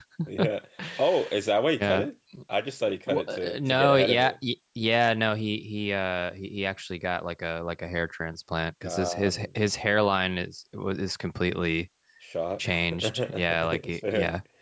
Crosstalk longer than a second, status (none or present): present